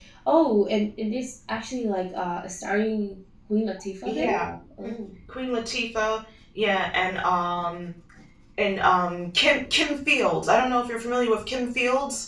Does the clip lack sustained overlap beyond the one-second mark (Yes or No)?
Yes